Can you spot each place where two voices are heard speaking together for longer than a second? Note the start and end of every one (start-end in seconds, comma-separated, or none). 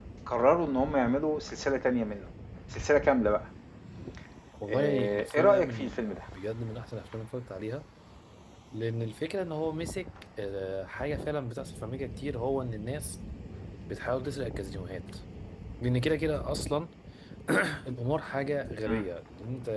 4.7-6.0